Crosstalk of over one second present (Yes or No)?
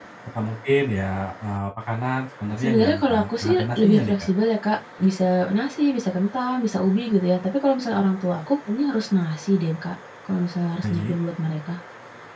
Yes